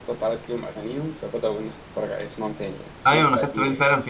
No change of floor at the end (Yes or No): No